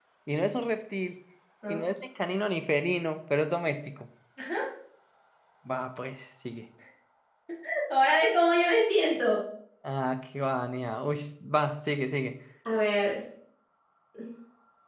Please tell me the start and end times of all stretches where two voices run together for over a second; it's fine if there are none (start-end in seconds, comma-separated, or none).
none